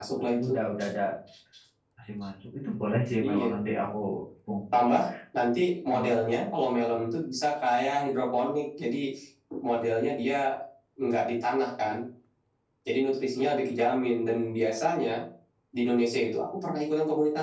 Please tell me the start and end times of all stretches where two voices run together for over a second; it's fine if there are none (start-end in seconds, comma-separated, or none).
none